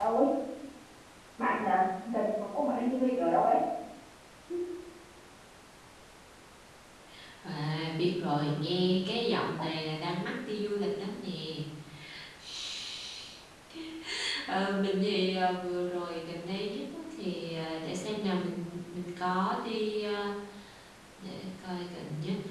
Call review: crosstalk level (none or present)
none